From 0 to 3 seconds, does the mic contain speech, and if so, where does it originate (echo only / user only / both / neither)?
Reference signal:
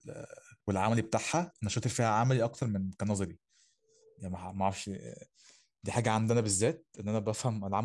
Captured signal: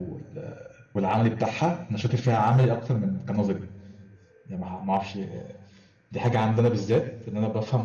echo only